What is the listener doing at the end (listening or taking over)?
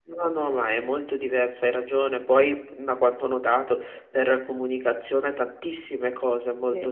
listening